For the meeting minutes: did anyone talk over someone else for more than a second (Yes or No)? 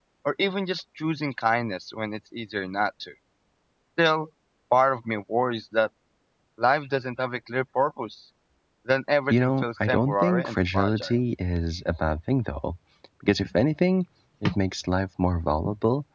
Yes